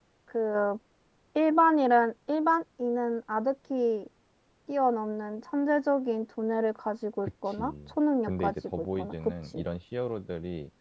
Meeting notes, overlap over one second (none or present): present